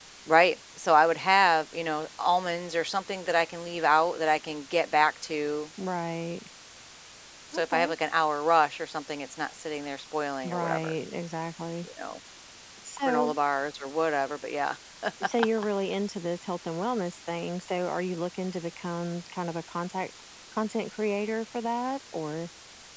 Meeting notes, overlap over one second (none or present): none